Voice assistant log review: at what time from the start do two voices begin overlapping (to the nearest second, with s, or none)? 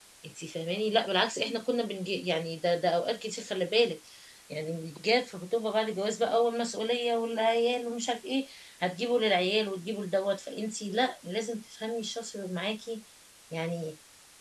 none